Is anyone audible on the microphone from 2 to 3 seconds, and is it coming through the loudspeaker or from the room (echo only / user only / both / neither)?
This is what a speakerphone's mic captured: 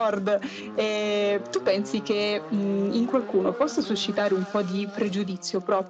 echo only